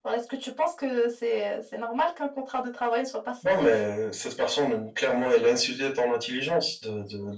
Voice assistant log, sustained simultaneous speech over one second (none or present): none